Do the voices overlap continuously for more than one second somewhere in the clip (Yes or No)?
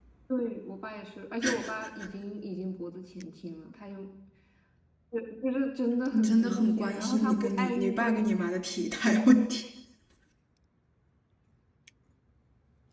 Yes